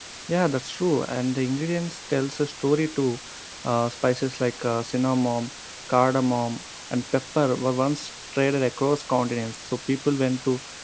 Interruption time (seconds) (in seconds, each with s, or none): none